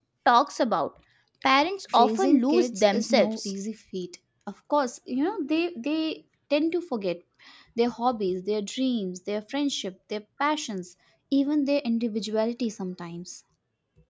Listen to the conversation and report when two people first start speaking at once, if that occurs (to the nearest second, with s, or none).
2 s